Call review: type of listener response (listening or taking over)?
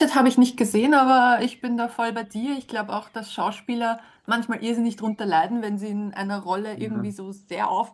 listening